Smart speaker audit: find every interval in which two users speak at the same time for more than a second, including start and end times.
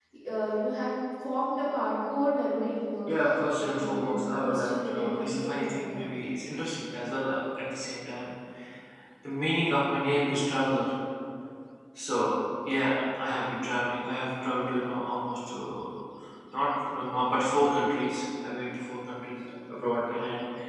3.6-6.1

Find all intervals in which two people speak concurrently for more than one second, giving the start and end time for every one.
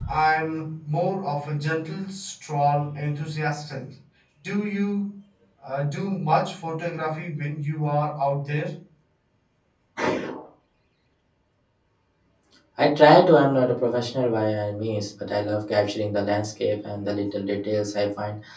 none

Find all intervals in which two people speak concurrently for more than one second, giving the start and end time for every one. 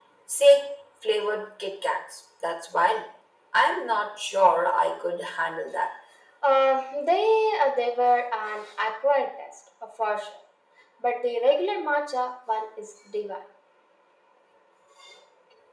none

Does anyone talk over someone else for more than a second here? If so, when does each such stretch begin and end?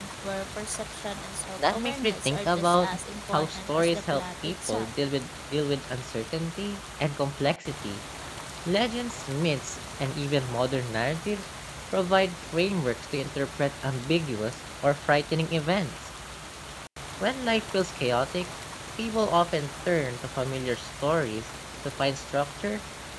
1.6-2.9, 3.3-4.9

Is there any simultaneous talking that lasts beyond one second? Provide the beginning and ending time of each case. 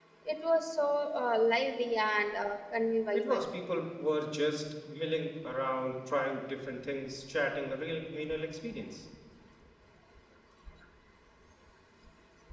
none

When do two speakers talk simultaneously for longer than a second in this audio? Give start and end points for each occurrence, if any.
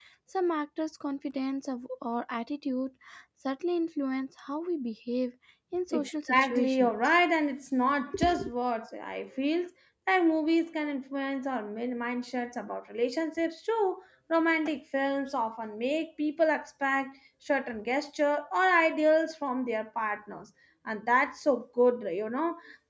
5.9-7.1

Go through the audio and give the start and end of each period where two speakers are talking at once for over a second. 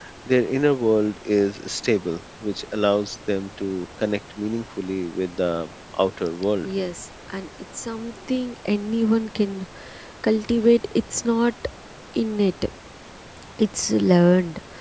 none

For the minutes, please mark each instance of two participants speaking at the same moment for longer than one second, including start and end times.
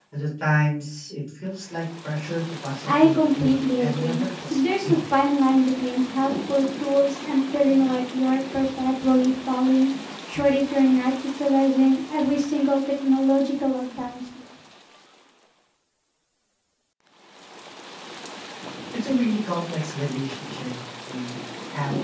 2.9-5.0

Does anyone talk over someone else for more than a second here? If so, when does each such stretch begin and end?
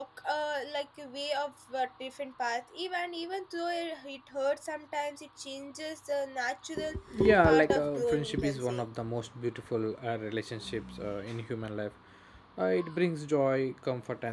7.4-8.9

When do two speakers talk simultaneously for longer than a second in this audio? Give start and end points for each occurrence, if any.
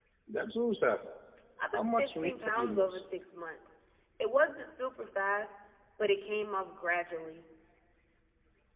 1.7-3.0

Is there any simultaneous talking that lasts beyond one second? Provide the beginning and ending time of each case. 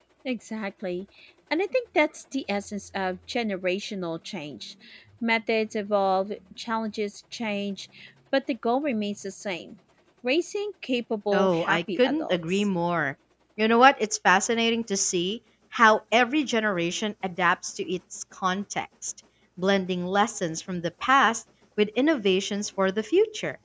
11.3-12.7

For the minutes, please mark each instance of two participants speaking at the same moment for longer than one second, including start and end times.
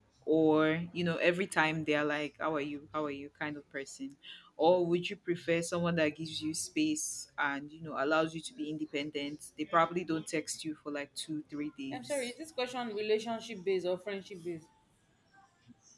none

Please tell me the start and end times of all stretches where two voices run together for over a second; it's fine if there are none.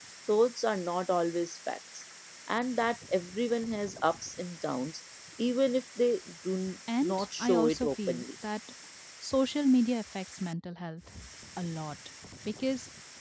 7.0-8.3

